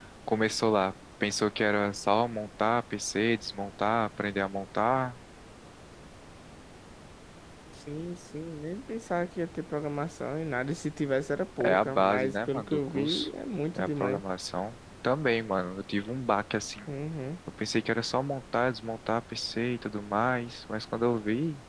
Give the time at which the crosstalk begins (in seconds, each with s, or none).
11.6 s